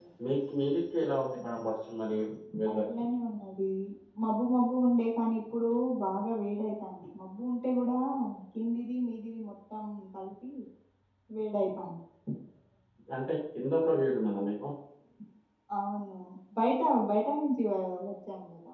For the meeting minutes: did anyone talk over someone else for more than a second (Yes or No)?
No